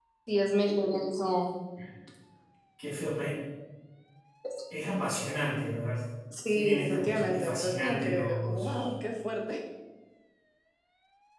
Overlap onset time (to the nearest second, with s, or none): 6 s